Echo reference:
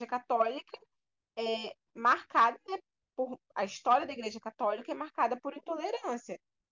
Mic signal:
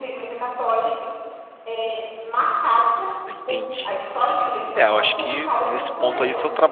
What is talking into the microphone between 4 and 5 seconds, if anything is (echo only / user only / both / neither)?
both